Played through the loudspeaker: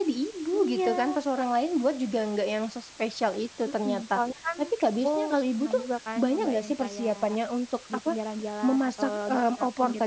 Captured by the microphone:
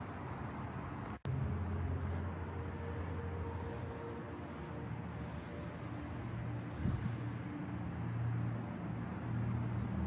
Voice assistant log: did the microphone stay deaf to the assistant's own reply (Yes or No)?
Yes